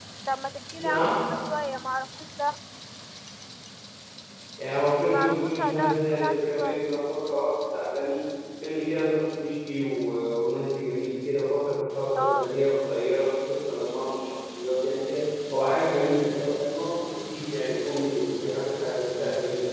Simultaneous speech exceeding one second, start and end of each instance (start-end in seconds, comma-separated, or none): 5.1-6.8